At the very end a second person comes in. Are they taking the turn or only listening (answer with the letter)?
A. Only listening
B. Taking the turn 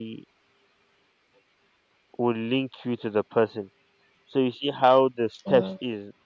A